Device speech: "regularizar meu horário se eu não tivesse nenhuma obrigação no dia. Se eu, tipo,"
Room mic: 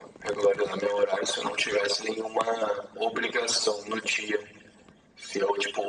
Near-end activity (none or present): none